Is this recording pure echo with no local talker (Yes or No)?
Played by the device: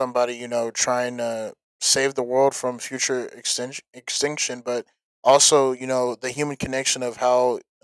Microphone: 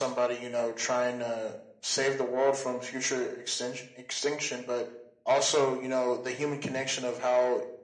Yes